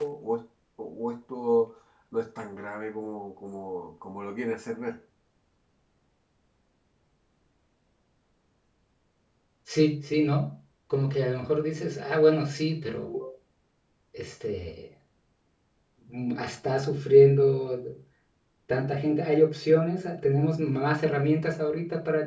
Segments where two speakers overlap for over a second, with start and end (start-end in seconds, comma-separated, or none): none